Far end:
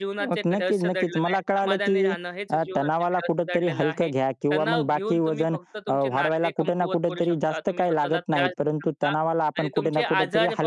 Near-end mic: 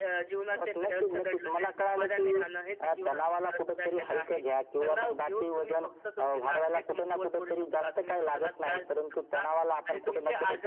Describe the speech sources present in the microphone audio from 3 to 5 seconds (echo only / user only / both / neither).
echo only